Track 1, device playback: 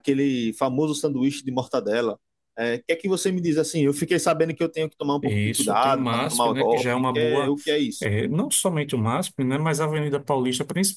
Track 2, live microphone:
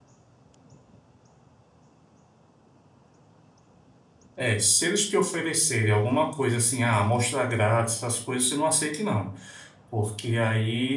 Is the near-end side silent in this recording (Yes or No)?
No